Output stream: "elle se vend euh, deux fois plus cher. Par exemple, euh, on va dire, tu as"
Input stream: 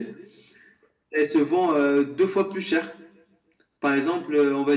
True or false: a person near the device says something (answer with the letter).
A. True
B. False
B